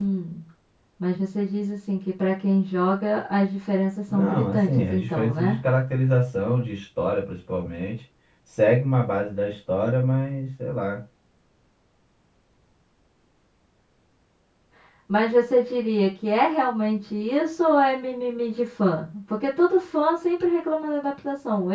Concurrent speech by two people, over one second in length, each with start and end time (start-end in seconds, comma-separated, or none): 4.1-5.6